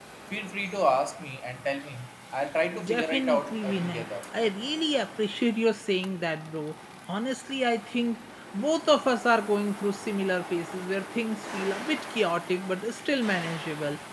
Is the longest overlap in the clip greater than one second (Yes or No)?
Yes